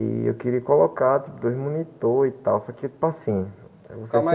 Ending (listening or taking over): taking over